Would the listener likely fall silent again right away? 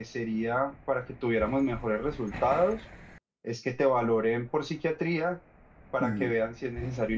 Yes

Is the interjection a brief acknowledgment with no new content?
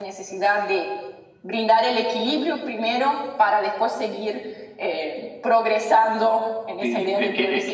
No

